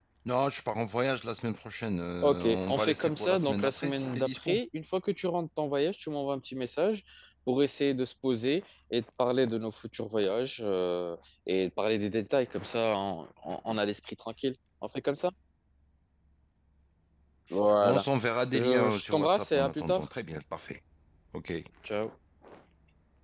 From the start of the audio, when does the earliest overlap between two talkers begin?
2.2 s

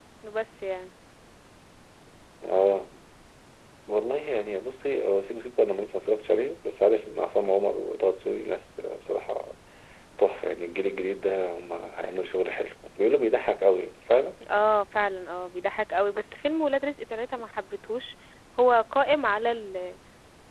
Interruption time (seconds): none

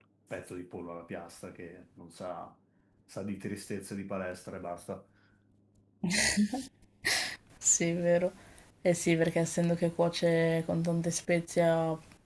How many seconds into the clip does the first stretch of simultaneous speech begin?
none

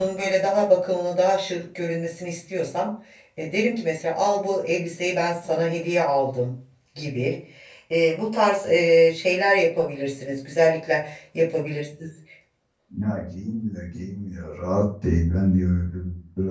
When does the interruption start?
none

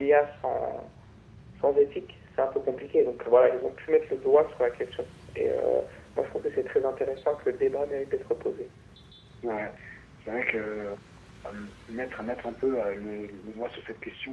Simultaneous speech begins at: none

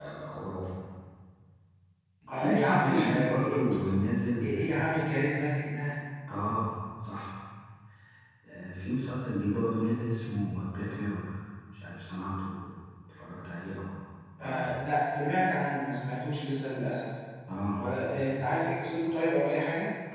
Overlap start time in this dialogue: 2.3 s

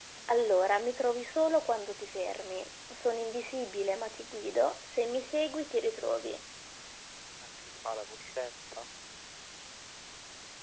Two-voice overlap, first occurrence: none

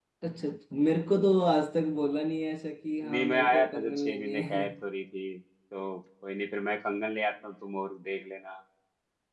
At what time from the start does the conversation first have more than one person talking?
3.0 s

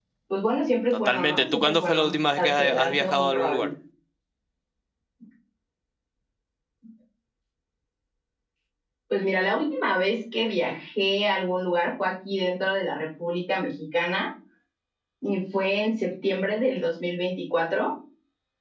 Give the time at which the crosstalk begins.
1.1 s

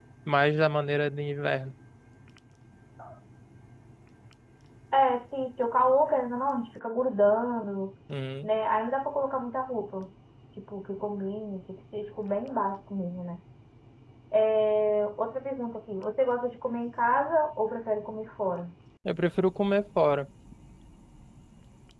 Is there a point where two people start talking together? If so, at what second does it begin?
none

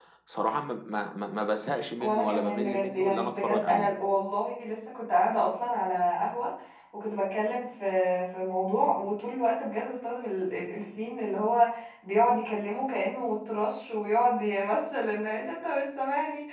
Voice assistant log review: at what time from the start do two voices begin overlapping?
2.0 s

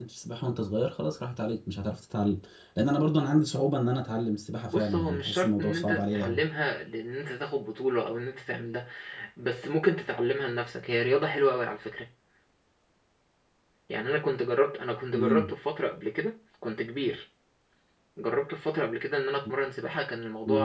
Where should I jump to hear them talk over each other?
4.7 s

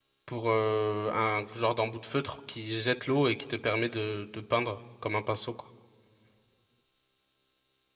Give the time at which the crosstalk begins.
none

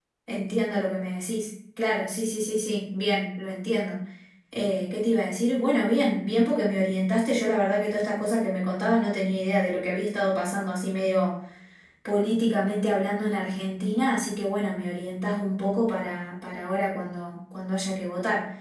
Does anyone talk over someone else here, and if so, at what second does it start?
none

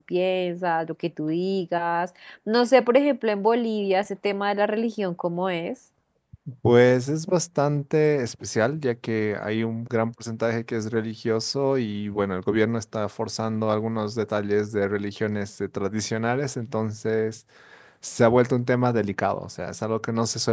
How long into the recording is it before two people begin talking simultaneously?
none

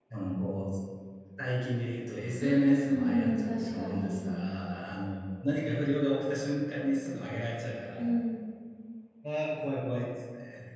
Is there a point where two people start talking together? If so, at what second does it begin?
2.4 s

